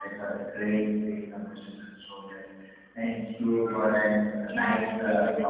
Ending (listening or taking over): taking over